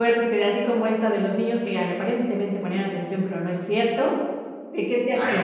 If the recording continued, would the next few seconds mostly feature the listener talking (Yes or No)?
Yes